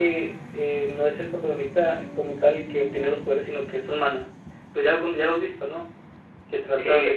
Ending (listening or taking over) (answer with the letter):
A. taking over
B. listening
A